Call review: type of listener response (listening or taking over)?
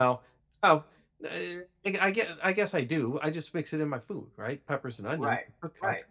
taking over